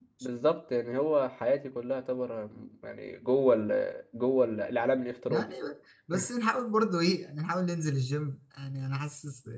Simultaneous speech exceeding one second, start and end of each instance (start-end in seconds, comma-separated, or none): none